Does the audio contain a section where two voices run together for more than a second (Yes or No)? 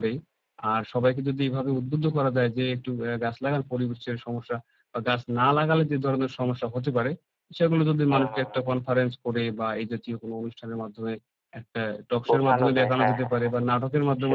Yes